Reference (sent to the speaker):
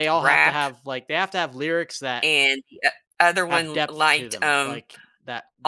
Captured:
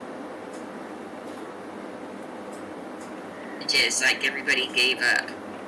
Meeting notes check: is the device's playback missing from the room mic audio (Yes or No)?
Yes